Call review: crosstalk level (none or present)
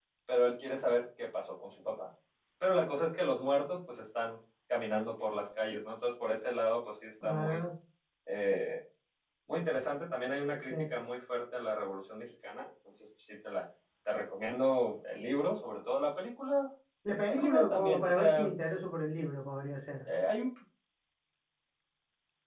present